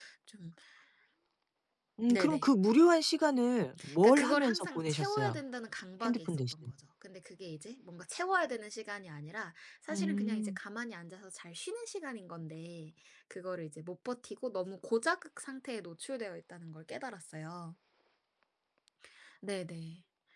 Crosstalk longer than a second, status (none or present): present